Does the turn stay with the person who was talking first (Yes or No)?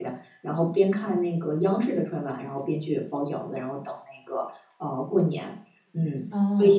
No